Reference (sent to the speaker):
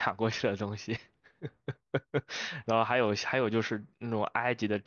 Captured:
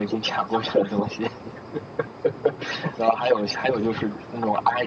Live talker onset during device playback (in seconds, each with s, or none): none